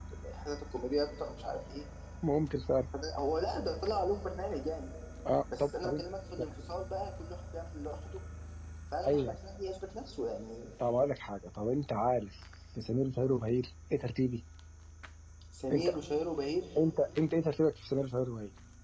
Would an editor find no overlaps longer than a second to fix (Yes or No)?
Yes